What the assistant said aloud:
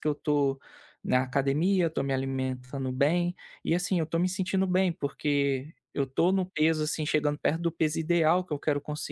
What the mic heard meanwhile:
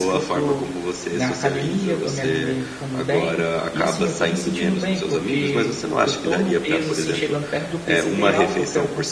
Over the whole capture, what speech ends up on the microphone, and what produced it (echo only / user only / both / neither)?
both